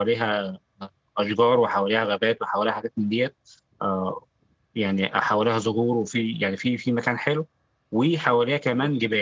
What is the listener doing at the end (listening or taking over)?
listening